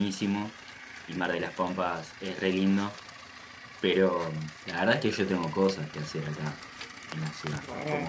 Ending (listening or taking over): listening